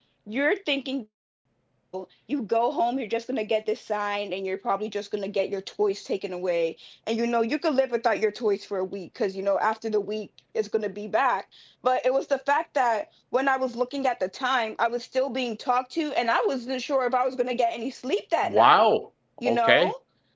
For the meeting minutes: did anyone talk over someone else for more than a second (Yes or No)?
No